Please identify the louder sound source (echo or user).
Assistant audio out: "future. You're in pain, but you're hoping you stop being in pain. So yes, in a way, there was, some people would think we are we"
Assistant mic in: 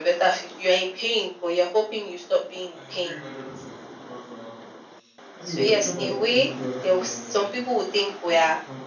echo